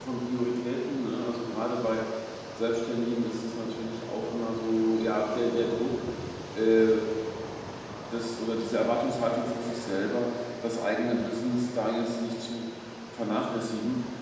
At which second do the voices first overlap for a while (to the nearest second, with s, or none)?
none